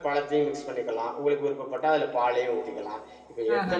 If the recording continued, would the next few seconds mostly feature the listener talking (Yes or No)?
No